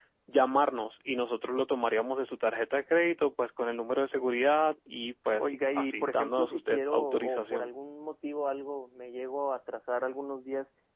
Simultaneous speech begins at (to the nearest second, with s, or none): 5 s